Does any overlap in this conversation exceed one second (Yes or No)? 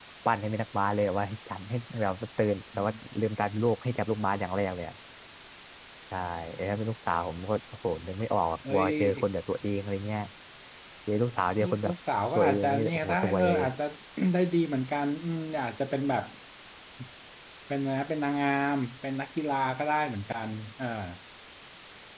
Yes